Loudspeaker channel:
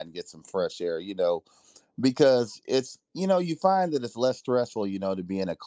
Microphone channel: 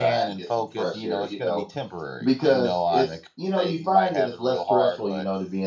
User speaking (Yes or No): Yes